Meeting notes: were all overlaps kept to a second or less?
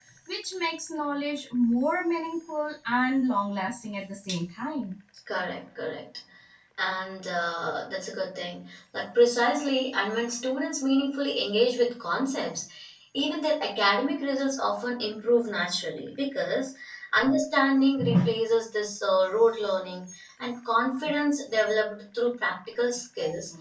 Yes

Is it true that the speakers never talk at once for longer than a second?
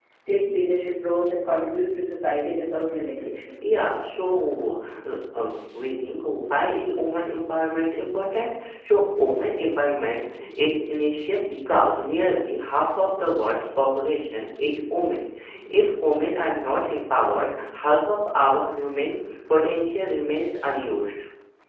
Yes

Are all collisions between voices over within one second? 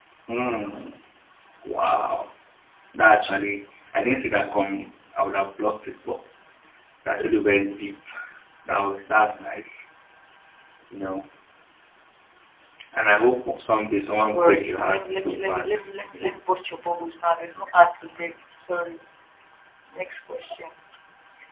No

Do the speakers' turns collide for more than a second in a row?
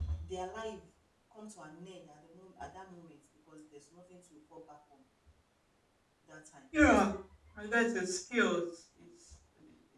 No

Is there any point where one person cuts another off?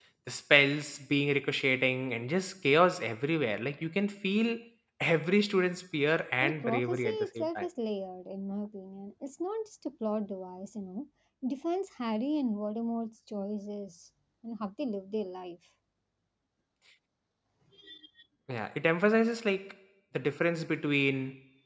Yes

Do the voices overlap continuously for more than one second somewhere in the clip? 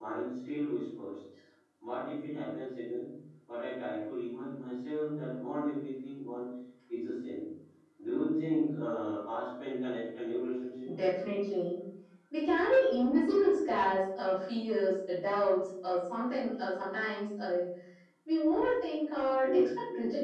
No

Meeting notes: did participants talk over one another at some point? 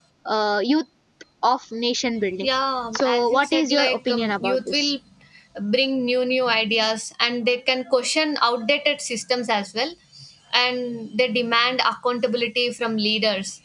Yes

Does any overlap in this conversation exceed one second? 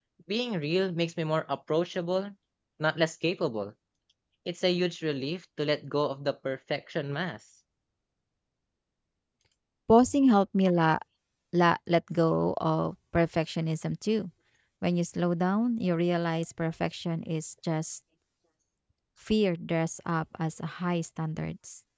No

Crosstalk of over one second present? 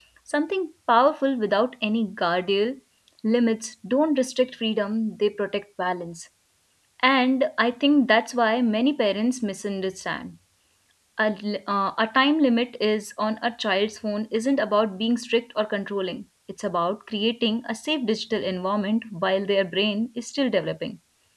No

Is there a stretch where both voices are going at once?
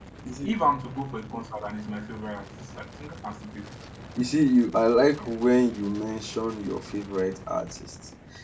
No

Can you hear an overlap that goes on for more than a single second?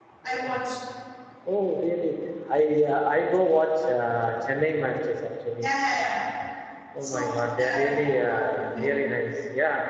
Yes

